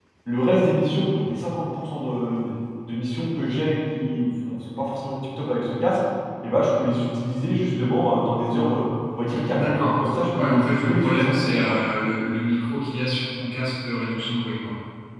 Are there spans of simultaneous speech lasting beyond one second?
Yes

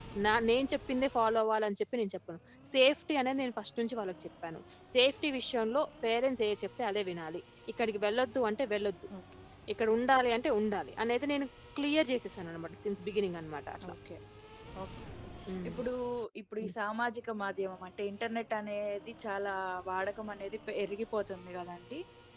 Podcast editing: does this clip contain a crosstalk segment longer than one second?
No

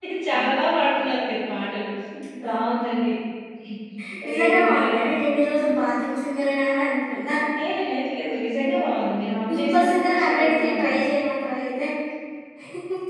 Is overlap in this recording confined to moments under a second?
No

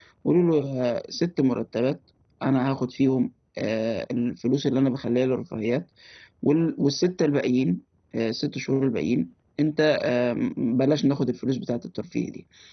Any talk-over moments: No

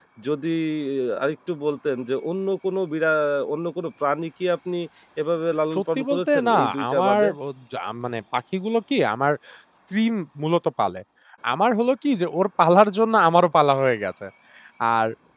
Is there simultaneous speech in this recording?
Yes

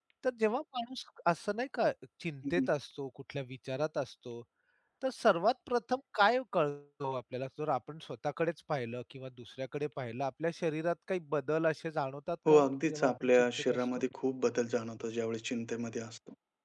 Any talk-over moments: Yes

